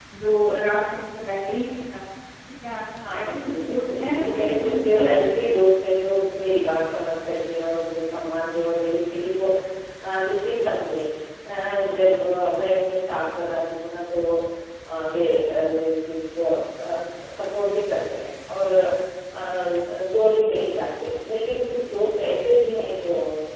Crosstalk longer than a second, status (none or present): present